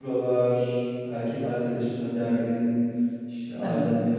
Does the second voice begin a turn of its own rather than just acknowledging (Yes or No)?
No